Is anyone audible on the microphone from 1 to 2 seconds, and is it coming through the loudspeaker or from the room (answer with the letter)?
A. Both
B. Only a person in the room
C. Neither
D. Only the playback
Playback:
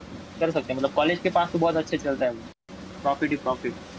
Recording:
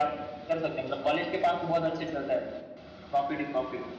D